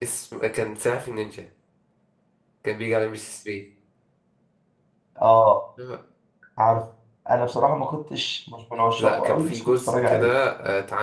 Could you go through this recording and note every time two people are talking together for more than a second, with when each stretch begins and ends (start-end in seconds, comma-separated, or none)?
9.0-10.3